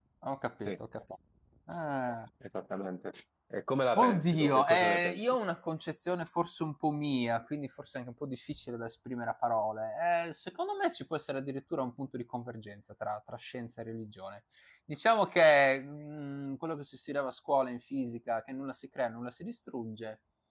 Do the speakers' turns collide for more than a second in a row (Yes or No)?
Yes